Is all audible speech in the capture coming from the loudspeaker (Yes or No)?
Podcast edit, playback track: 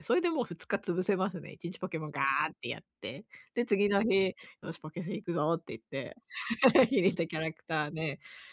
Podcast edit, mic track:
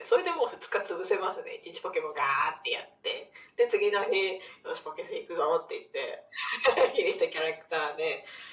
Yes